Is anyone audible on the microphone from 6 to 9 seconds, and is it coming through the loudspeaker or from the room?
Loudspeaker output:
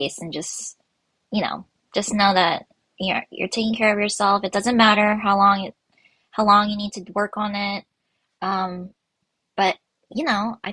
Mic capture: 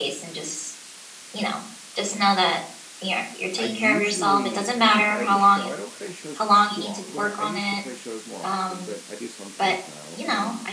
both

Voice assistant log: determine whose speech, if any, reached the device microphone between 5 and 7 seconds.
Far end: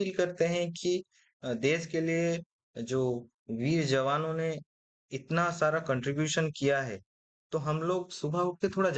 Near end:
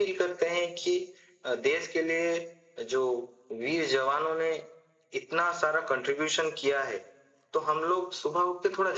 echo only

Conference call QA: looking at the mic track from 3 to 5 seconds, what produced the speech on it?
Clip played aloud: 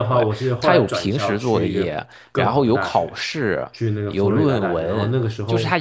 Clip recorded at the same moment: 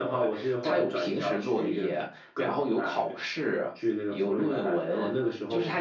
echo only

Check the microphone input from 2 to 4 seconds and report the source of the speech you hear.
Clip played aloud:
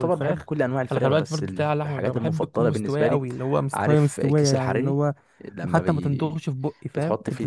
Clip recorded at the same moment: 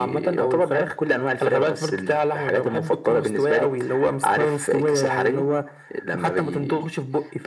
echo only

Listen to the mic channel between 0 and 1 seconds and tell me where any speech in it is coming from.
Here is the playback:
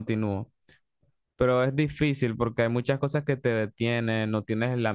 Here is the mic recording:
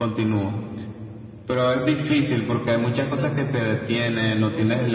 echo only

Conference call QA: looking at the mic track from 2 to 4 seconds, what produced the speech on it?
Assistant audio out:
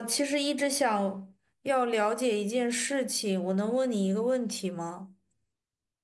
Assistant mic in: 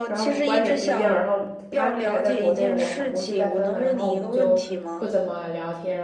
both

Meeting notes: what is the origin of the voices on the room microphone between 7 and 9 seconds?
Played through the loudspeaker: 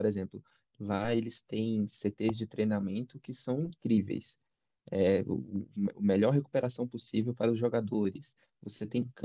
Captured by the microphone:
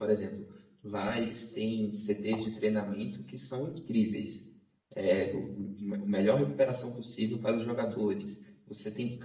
echo only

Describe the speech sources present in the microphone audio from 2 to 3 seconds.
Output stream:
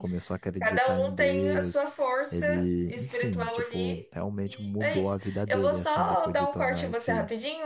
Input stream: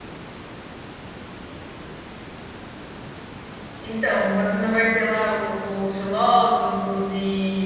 neither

